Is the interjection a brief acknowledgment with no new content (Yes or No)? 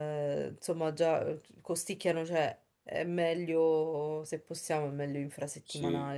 No